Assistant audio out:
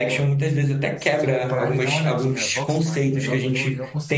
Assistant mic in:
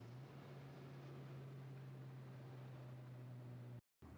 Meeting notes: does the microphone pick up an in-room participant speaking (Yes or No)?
No